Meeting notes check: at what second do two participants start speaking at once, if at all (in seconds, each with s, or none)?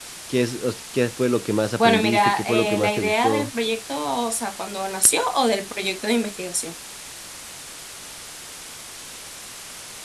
1.8 s